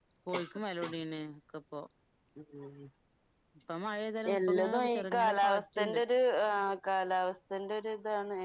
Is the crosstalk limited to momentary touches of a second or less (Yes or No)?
No